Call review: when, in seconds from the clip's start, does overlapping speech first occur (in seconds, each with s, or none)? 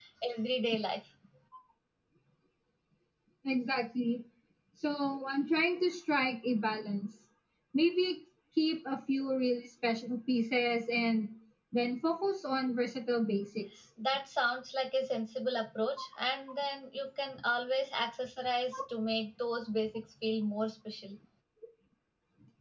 none